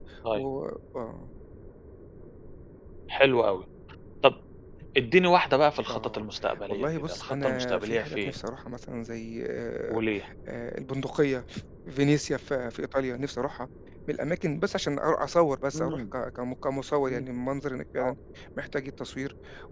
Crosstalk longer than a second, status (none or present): present